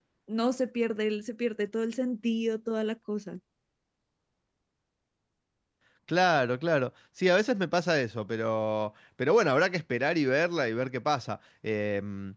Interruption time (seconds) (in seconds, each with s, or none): none